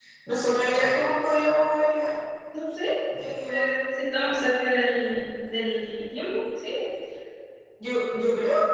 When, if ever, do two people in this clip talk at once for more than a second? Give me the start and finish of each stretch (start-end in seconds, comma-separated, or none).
none